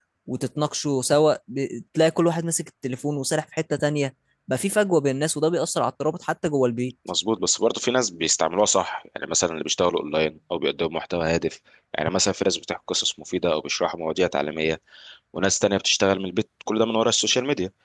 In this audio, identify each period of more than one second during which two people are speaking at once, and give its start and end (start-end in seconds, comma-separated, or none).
none